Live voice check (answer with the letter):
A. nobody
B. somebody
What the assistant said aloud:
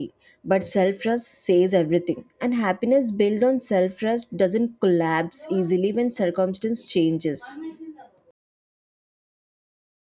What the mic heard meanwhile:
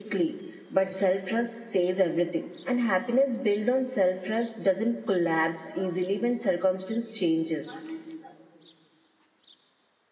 A